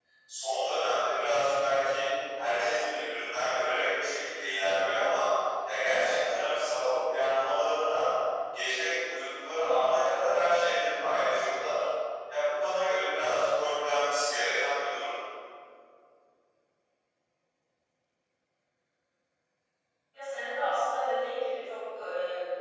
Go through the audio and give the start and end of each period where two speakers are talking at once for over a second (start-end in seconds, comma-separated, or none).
none